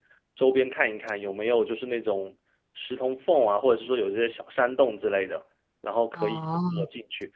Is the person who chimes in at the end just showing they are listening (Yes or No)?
Yes